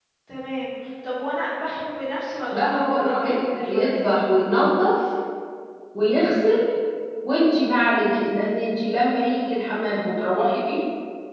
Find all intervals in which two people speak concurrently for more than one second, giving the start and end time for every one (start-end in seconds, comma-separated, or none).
2.5-4.2